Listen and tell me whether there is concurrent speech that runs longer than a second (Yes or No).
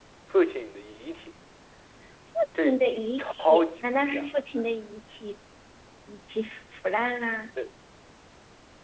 Yes